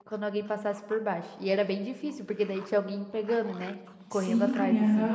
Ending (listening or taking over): taking over